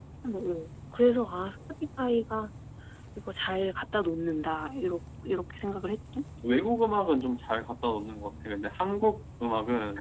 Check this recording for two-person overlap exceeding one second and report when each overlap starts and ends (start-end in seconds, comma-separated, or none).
none